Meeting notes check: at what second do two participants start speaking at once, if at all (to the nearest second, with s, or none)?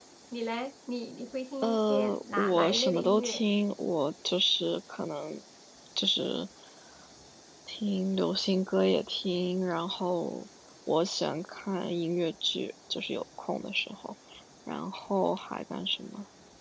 2 s